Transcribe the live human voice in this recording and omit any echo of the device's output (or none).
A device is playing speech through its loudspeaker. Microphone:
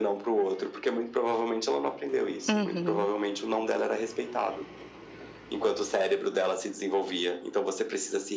Uhum.